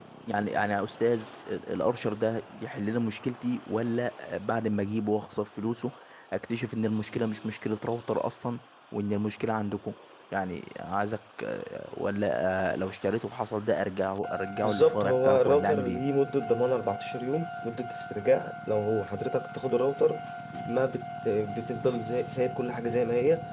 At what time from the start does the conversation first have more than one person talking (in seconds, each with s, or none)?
14.6 s